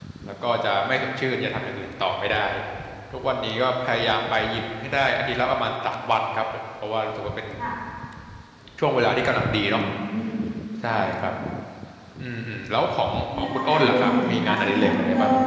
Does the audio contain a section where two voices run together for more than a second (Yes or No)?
Yes